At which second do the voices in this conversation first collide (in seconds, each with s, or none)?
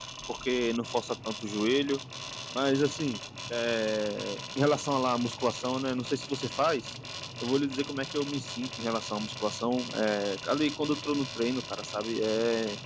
none